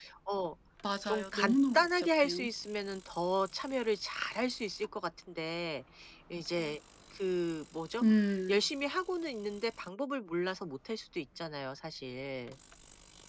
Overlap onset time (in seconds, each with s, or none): 1.1 s